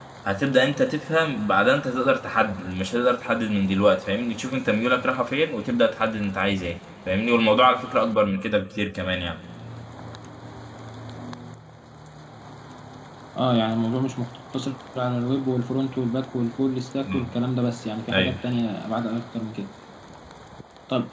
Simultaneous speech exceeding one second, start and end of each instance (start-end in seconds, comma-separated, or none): none